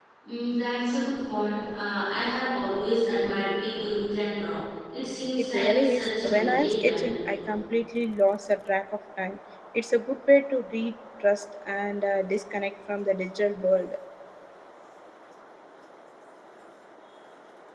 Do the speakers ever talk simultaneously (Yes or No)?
Yes